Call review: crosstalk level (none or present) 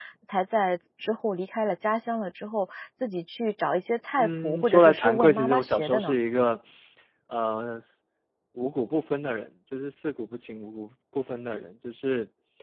present